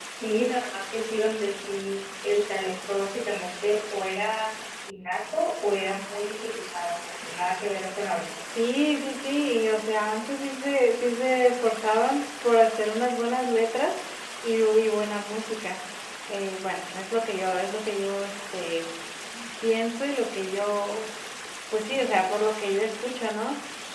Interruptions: none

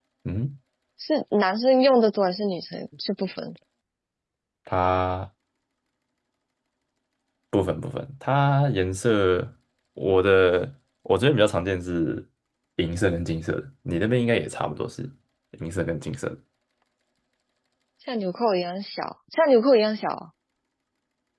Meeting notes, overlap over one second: none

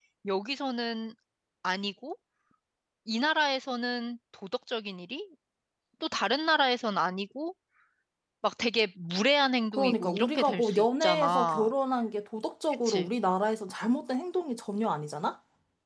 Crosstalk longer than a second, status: present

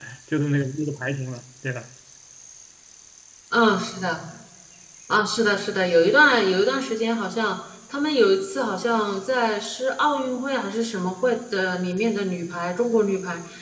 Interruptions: none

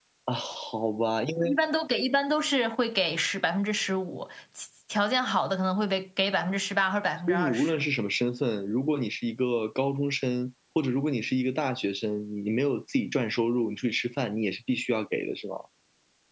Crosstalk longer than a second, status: none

